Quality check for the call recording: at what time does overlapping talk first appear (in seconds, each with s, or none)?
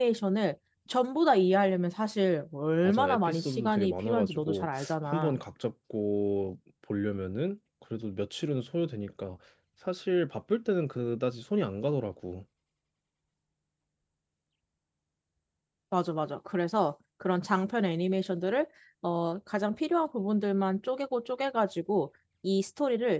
2.8 s